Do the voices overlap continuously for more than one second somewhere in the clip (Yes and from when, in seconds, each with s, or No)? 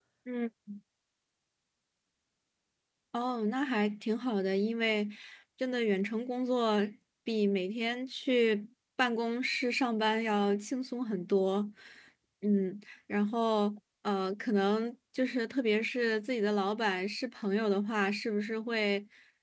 No